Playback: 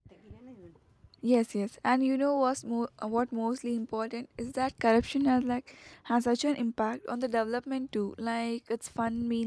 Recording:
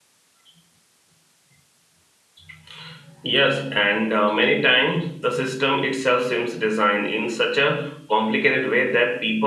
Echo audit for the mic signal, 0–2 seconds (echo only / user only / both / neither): neither